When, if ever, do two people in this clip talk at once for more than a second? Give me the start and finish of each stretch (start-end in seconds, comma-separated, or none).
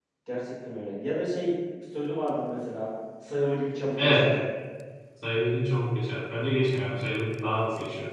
none